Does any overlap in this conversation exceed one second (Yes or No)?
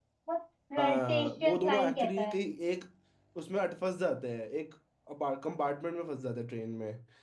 Yes